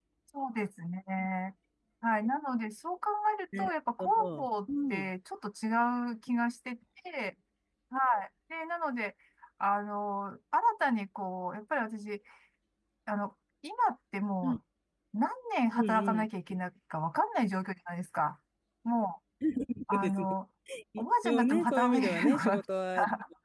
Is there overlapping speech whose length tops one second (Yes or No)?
Yes